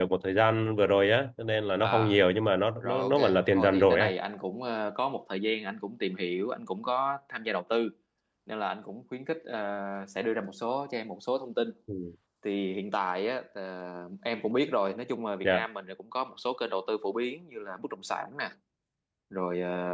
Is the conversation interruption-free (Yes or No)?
No